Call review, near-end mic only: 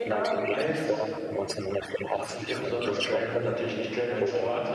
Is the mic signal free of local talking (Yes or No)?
No